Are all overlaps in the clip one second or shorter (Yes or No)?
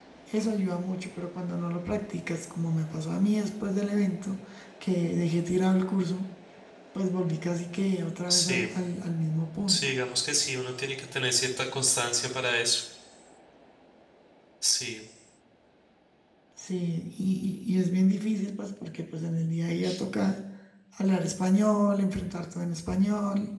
Yes